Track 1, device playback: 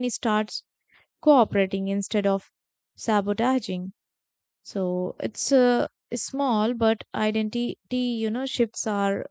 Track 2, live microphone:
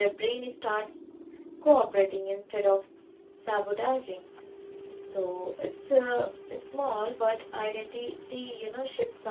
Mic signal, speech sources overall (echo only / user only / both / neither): echo only